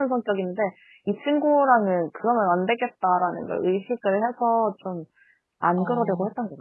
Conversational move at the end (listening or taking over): taking over